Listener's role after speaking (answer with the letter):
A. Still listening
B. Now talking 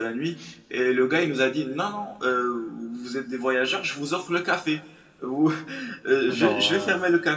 A